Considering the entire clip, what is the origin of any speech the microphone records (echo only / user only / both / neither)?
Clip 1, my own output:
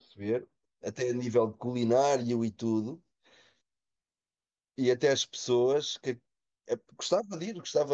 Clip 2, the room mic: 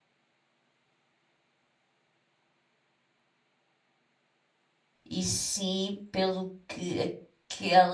user only